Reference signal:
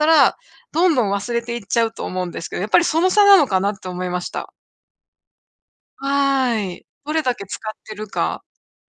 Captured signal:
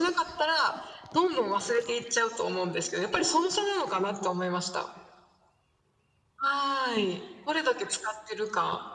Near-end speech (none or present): none